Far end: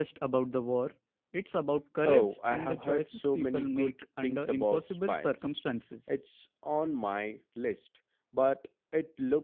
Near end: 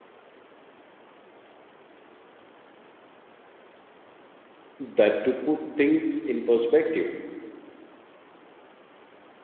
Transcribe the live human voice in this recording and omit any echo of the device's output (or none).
that to put things in perspective.